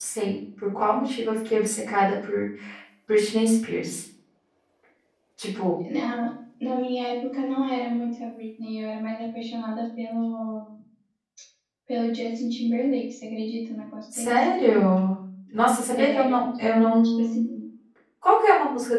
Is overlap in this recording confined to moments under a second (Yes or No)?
No